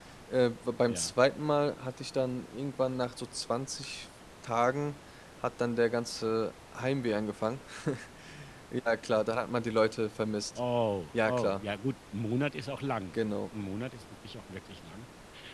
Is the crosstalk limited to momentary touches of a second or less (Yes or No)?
Yes